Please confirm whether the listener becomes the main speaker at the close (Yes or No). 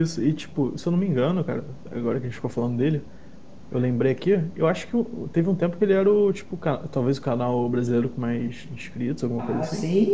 Yes